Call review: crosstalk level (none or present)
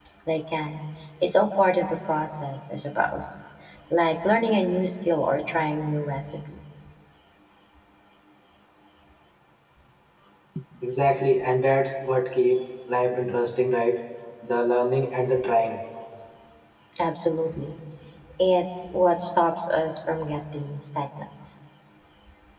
none